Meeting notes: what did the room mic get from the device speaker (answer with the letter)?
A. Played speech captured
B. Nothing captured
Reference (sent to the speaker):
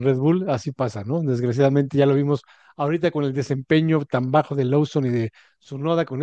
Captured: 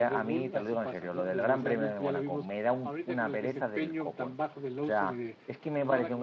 A